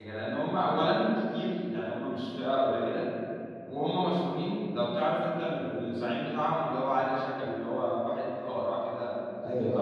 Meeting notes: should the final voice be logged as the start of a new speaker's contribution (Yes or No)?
Yes